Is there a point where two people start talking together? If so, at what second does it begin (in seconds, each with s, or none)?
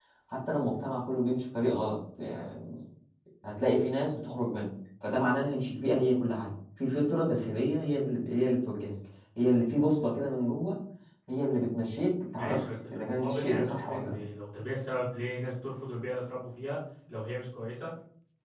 12.3 s